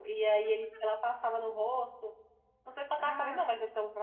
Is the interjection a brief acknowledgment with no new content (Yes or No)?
Yes